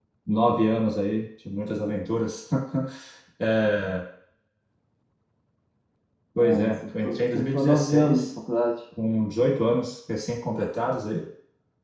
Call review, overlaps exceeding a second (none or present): present